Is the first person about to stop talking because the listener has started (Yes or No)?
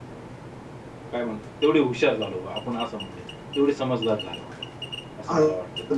Yes